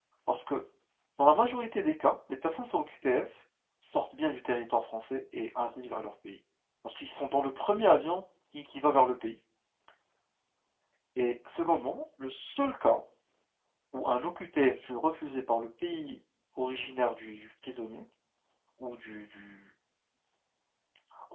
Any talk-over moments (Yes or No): No